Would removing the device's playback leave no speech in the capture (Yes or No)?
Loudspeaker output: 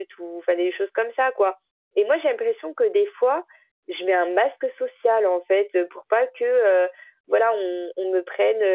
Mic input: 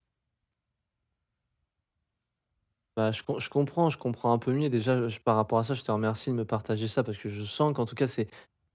No